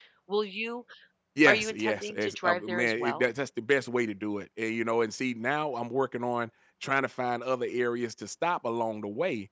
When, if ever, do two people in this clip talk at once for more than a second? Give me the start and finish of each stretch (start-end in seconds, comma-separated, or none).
1.4-3.3